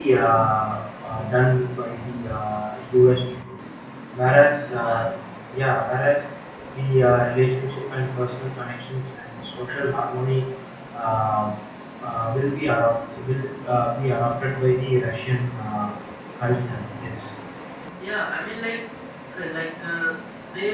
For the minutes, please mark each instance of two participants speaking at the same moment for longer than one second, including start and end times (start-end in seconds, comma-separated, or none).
none